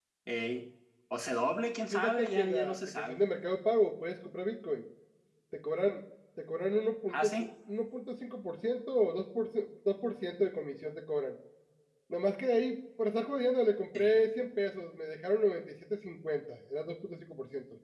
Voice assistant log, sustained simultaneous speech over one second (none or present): present